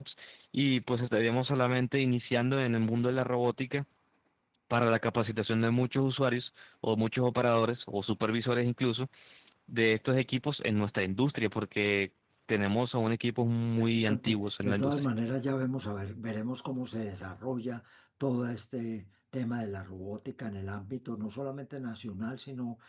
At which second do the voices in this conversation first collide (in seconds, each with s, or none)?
13.8 s